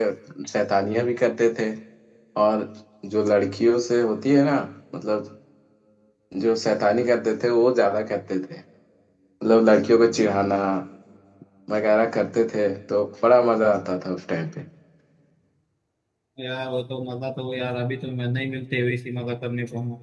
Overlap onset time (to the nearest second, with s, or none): none